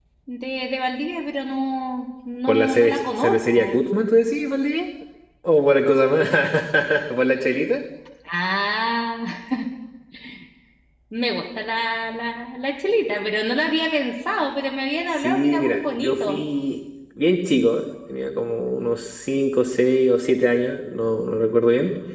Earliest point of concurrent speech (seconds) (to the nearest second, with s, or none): 2 s